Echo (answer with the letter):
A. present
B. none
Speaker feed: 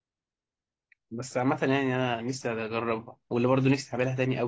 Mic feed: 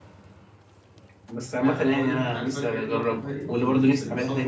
A